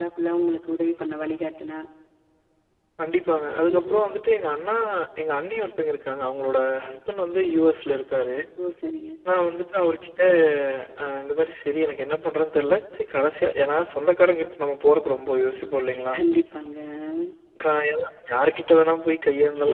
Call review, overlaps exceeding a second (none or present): none